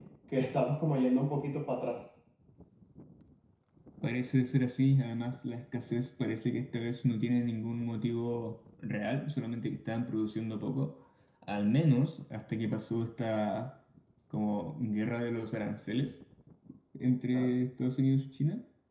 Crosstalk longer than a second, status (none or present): none